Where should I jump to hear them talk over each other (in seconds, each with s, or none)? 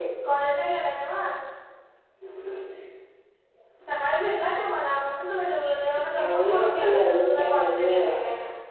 6.2 s